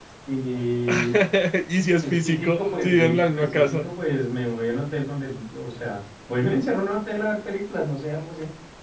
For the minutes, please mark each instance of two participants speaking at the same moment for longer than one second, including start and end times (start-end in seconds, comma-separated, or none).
2.0-3.9